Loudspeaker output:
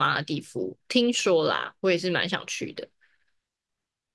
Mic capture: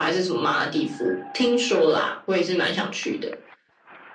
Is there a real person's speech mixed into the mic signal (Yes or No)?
No